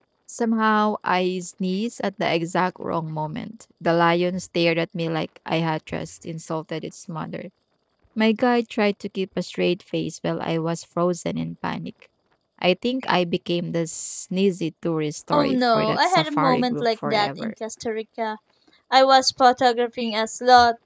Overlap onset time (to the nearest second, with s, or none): 15 s